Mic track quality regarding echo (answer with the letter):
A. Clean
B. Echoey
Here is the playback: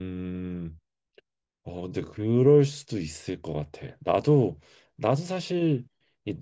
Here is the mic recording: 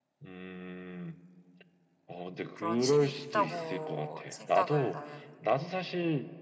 B